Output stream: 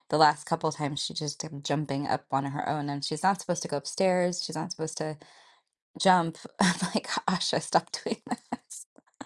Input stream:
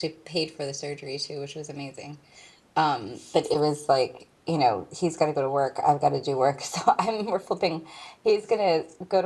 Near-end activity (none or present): present